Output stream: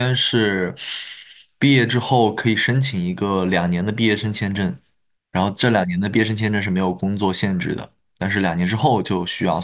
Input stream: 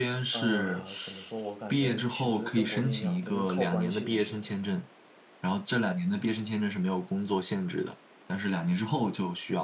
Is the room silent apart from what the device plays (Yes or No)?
No